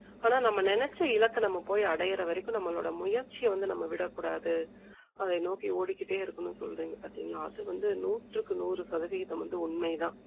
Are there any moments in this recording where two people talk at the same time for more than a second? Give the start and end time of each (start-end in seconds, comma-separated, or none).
none